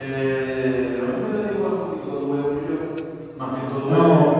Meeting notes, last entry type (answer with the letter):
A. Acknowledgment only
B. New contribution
B